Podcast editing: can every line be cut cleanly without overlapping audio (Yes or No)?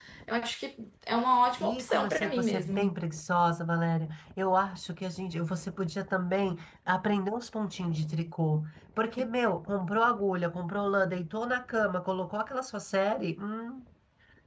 No